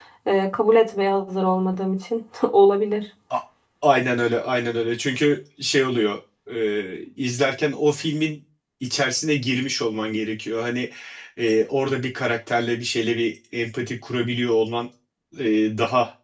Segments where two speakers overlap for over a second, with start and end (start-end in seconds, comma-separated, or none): none